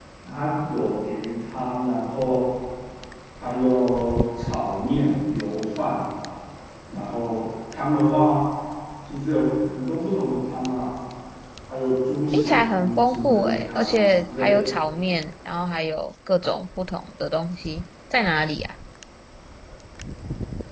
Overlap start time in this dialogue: 12.3 s

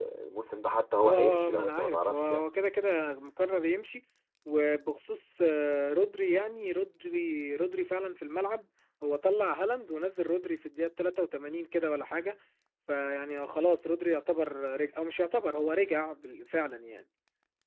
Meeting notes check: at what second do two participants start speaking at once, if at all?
1.0 s

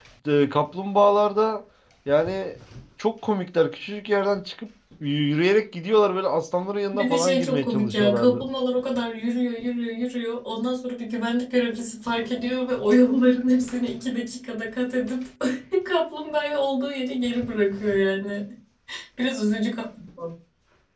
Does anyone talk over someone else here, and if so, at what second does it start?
6.9 s

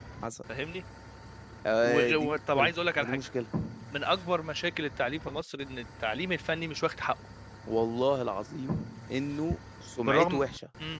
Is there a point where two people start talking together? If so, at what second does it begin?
1.8 s

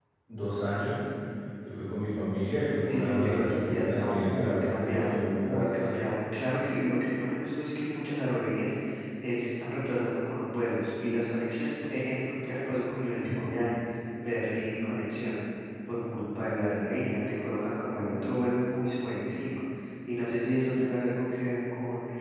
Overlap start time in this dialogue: 2.9 s

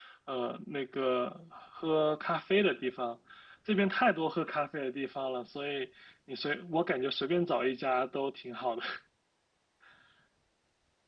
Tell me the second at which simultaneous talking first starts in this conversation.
none

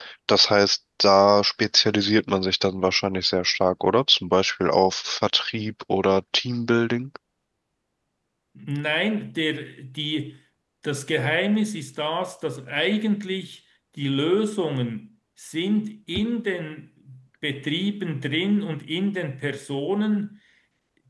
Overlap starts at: none

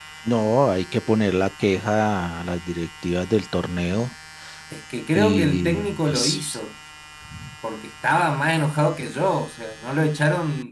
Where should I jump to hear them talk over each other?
5.1 s

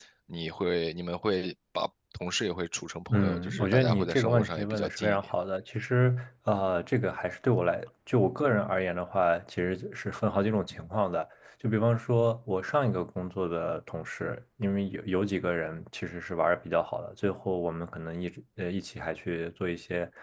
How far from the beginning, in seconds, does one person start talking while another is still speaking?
3.1 s

